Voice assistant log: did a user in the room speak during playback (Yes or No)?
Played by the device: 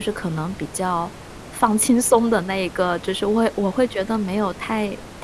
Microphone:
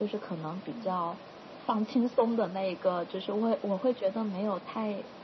Yes